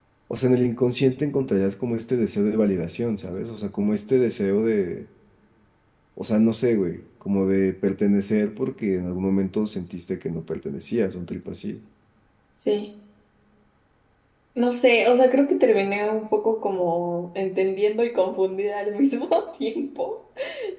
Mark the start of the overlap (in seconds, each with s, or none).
none